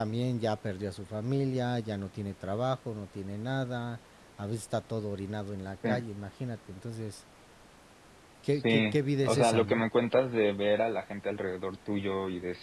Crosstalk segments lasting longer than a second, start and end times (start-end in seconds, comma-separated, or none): 8.5-9.8